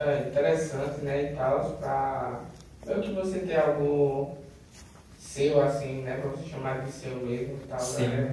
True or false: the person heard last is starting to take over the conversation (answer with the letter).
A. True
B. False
A